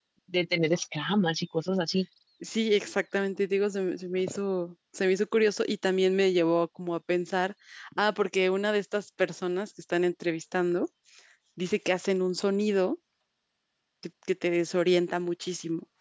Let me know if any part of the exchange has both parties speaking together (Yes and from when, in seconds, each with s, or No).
No